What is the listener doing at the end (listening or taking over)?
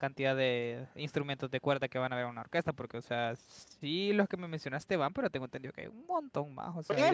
taking over